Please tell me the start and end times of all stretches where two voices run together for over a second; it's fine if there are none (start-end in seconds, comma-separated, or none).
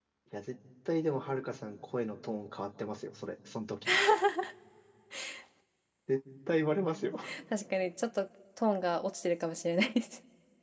none